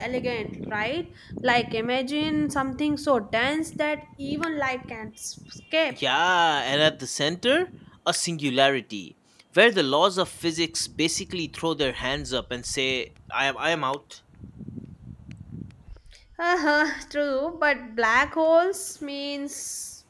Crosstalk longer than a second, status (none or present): none